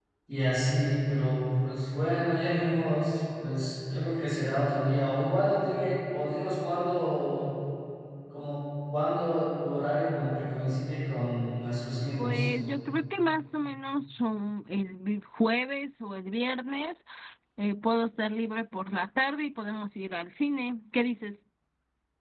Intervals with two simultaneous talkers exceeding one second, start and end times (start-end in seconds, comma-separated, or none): none